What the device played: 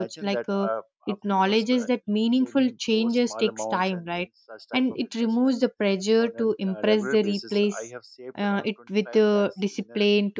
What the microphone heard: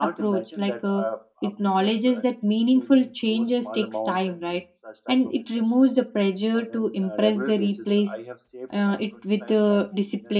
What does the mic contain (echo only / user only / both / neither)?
echo only